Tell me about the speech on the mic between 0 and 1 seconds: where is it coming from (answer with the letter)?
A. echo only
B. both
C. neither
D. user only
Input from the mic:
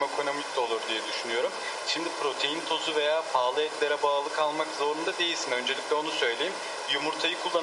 A